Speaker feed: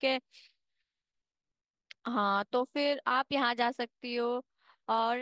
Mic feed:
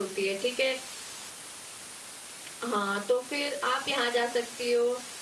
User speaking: No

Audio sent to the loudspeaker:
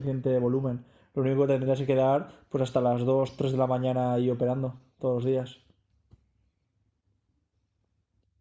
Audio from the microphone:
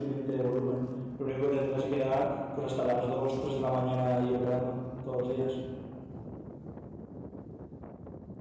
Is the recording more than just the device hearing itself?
No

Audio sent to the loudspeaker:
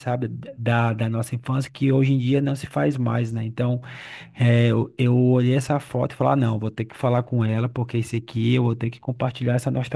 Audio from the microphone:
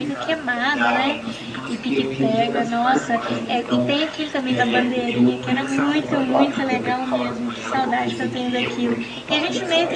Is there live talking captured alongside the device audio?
Yes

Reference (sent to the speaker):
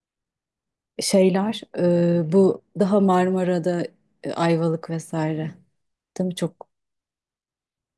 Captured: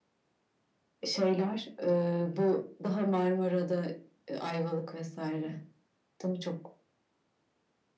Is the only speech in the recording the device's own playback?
Yes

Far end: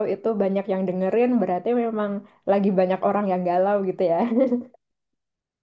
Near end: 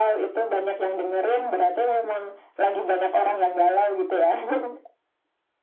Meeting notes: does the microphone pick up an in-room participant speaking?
No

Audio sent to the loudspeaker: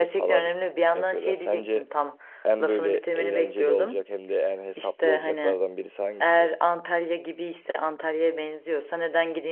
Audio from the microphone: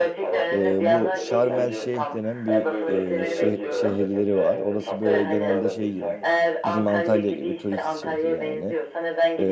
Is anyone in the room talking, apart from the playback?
Yes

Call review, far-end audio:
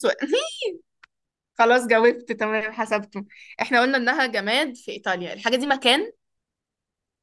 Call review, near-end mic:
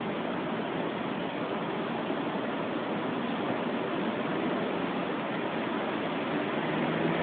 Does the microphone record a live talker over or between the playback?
No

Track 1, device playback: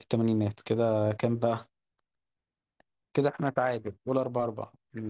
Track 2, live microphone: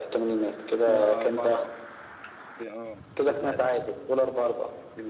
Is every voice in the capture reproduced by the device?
No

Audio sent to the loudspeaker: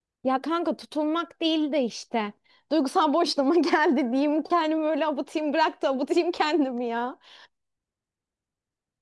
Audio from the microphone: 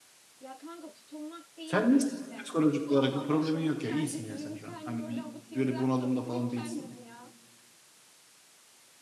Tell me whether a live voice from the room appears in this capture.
Yes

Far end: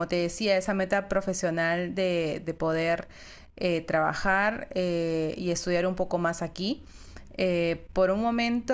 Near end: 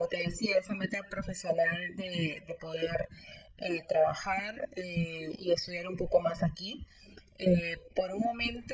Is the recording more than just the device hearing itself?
No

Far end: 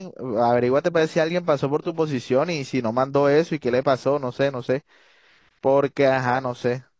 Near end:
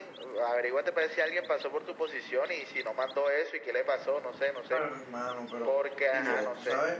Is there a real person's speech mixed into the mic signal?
Yes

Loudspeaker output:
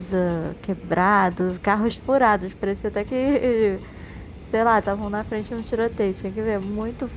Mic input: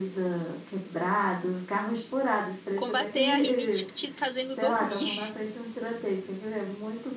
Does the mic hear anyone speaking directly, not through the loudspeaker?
Yes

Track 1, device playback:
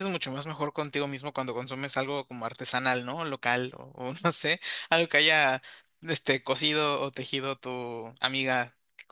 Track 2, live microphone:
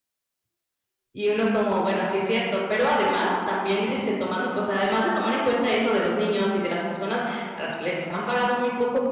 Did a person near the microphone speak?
Yes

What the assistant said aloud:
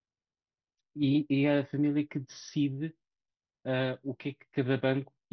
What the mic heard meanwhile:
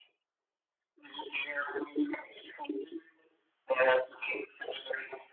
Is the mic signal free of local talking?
Yes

